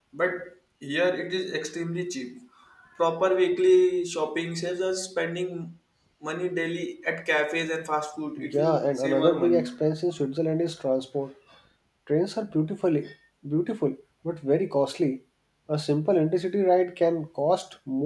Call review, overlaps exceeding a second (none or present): present